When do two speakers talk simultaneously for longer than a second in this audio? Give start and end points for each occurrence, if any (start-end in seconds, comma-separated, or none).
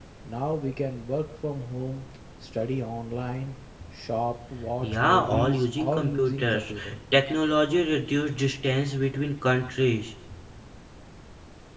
4.8-6.7